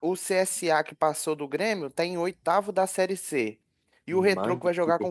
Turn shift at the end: No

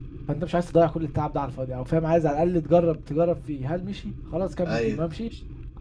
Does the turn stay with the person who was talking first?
Yes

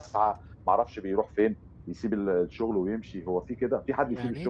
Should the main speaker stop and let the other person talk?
Yes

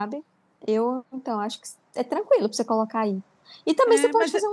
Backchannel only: No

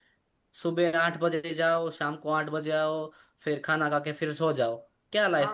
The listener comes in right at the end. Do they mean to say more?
Yes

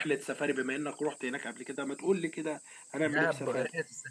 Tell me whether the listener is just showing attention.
No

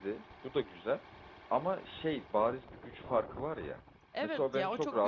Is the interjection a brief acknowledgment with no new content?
No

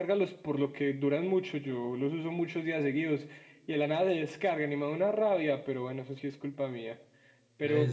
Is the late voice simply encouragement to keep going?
No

